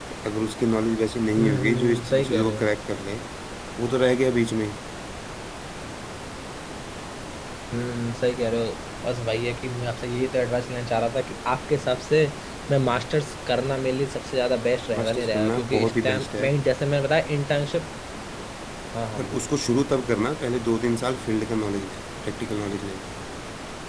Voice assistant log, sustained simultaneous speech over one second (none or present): present